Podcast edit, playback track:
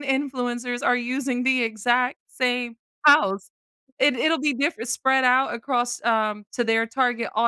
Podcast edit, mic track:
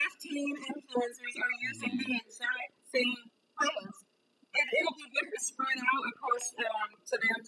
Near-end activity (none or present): present